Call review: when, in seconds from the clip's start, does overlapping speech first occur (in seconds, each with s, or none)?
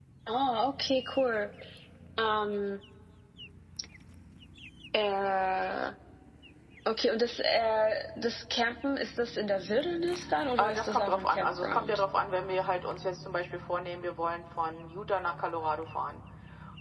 10.6 s